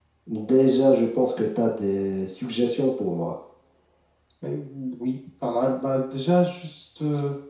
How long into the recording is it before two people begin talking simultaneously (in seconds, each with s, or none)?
none